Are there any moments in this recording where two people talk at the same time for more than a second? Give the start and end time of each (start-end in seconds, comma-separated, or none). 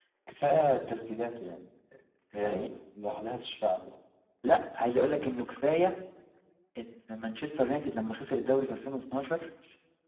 none